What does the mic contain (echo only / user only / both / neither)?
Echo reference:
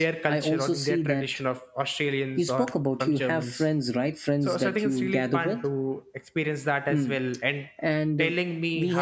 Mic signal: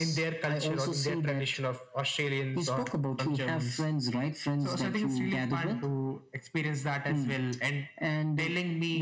echo only